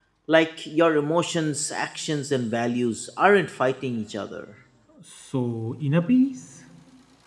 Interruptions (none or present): none